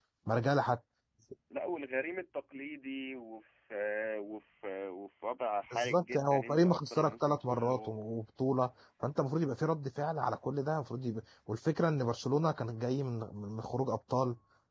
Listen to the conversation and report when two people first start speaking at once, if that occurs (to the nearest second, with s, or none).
6 s